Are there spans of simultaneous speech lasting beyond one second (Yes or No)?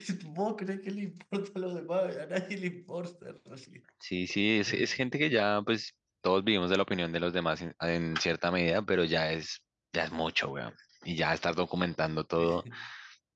No